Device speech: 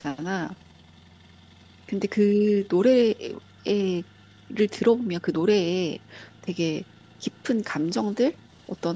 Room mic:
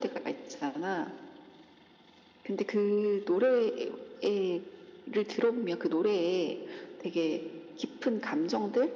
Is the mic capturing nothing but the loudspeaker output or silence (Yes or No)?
Yes